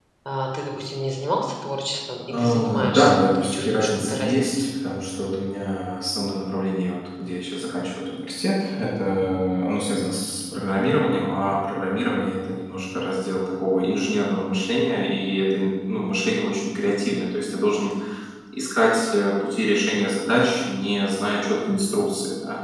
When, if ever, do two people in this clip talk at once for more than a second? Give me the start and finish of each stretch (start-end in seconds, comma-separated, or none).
2.3-4.6